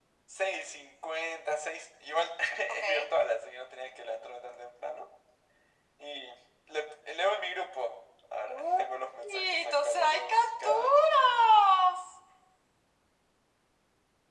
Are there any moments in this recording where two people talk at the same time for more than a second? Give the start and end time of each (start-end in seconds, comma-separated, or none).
8.5-11.1